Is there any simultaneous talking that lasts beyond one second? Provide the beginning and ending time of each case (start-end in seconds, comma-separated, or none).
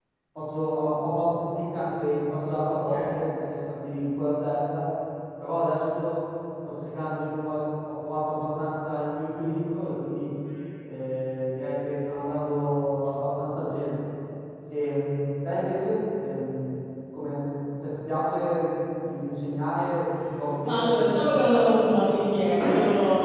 20.6-21.9